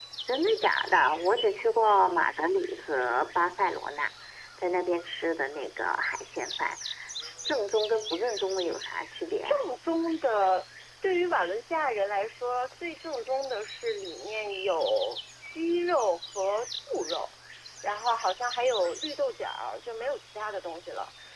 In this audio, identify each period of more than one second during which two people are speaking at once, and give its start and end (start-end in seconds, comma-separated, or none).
none